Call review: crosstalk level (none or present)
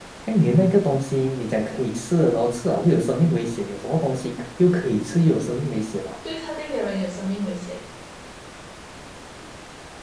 none